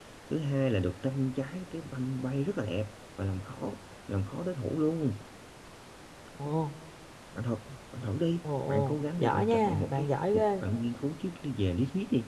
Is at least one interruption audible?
Yes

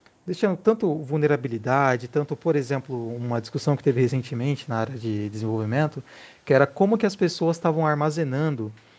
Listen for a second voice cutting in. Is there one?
No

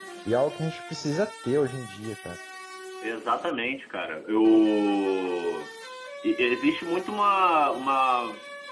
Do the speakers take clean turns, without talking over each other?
Yes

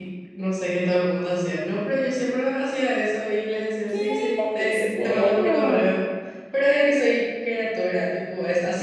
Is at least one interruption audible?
Yes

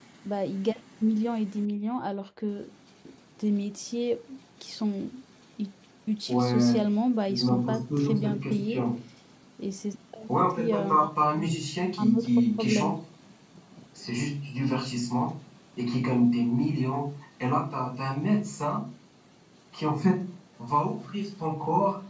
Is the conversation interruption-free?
No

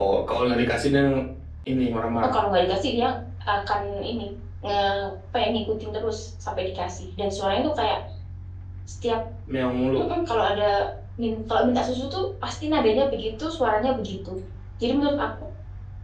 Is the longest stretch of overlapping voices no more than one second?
Yes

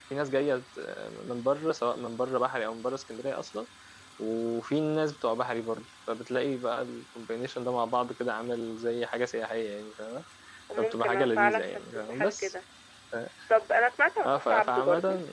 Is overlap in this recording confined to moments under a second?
No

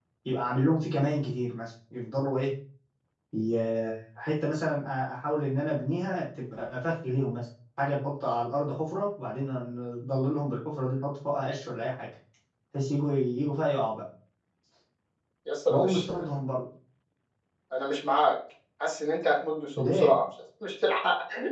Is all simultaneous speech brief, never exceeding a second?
Yes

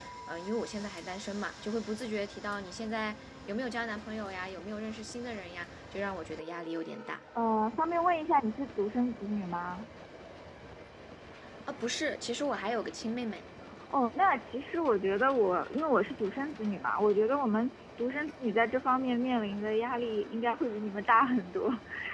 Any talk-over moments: No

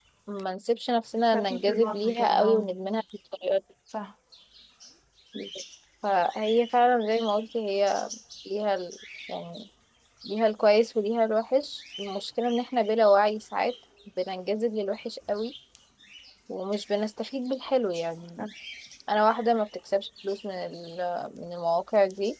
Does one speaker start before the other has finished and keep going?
Yes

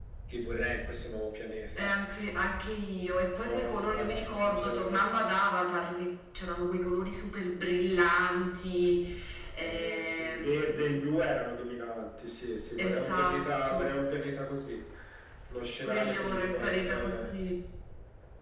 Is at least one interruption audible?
Yes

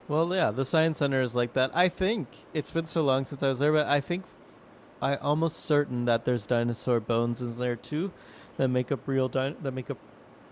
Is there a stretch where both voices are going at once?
No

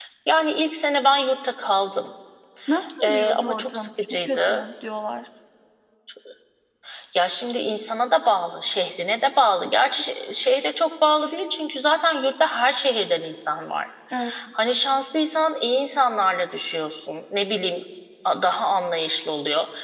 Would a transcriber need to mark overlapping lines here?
Yes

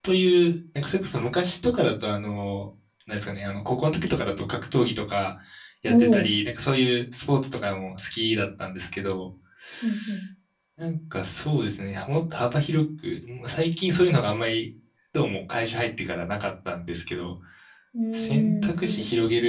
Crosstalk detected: Yes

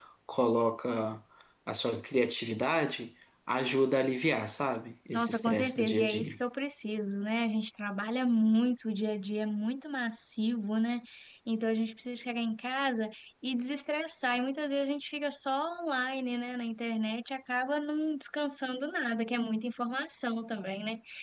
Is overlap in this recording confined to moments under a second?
No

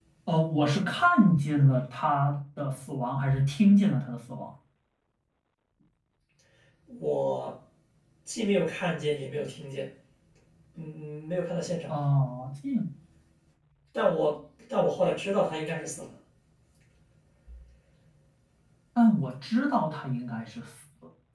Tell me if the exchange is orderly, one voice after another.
Yes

